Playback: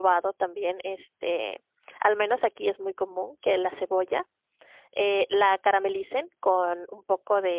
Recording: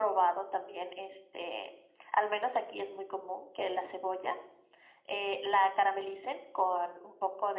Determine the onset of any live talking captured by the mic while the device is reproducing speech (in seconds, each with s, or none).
none